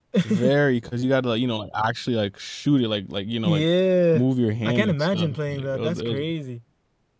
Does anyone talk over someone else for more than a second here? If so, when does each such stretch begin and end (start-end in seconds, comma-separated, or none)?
4.6-6.2